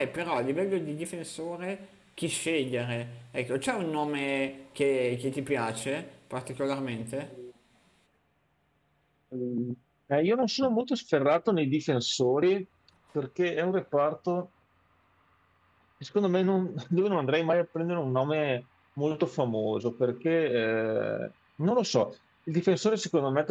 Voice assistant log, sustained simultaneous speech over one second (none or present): none